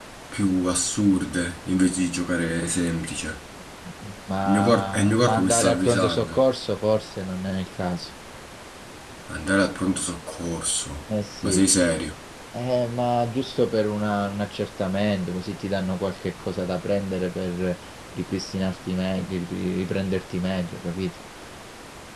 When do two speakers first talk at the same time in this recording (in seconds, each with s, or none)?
4.5 s